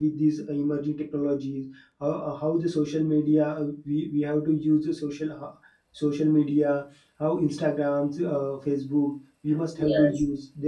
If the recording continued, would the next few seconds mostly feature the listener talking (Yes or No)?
No